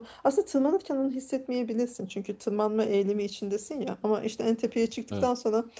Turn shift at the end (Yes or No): No